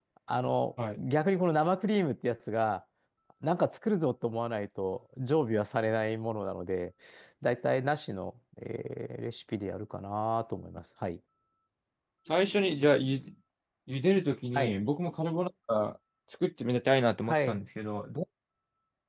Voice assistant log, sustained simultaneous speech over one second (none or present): none